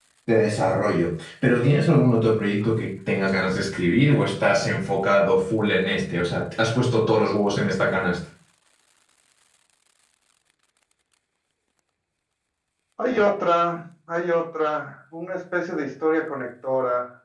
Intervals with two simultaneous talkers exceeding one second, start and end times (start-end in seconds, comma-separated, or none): none